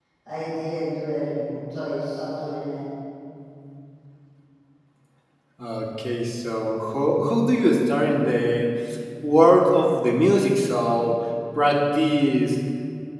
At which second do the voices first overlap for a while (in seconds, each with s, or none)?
none